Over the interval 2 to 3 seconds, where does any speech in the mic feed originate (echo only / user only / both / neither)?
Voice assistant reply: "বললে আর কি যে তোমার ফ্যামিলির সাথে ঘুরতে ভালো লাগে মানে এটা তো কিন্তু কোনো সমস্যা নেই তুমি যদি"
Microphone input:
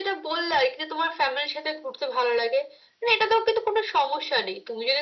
echo only